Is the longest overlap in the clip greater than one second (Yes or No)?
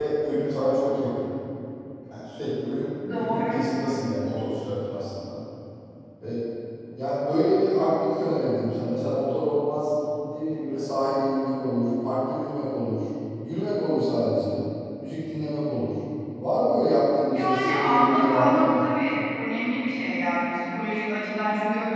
Yes